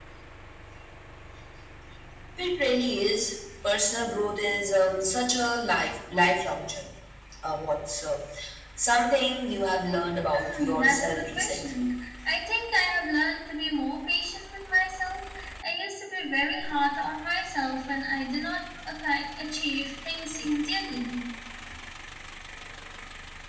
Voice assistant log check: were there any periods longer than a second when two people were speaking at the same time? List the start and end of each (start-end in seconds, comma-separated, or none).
10.3-11.8